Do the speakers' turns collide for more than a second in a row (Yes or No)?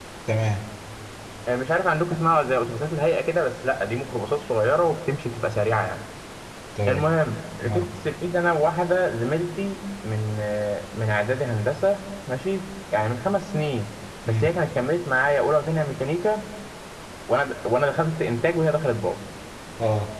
No